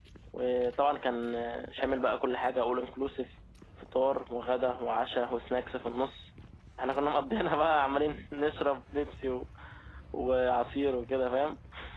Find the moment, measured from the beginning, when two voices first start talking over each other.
none

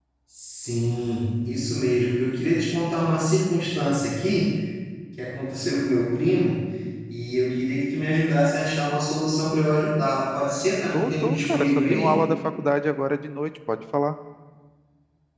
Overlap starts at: 10.9 s

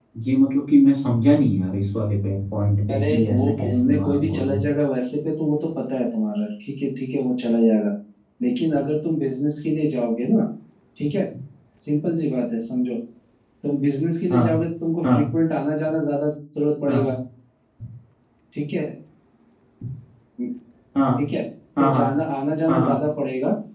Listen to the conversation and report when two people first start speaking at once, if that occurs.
2.9 s

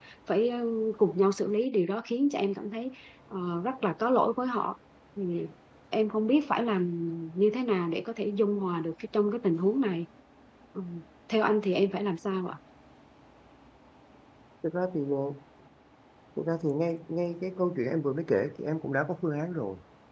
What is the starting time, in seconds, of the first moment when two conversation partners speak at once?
none

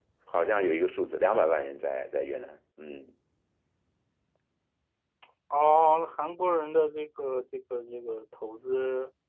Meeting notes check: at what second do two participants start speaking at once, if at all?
none

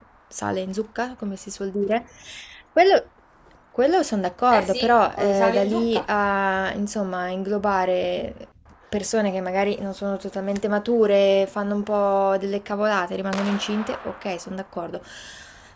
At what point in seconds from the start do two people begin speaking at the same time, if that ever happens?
4.5 s

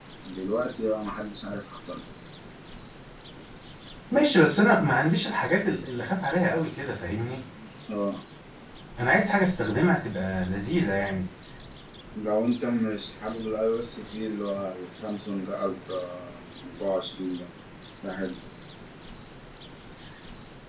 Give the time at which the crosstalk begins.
none

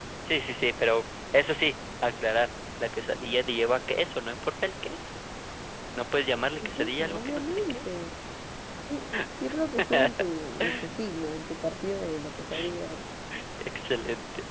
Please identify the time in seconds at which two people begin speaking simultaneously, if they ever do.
6.6 s

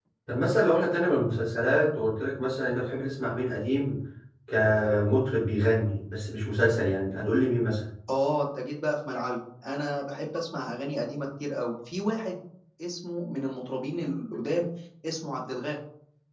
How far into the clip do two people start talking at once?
none

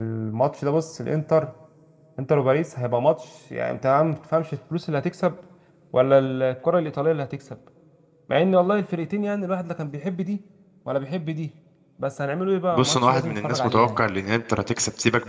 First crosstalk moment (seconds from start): 12.7 s

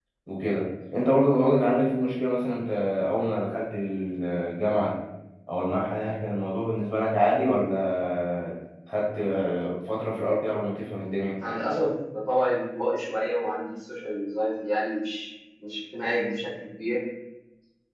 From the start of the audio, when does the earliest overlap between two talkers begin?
none

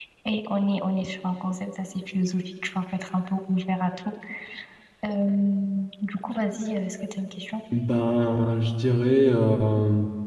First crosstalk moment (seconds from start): none

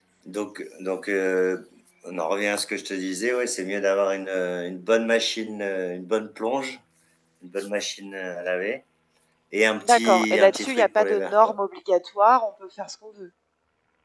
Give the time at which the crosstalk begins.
9.8 s

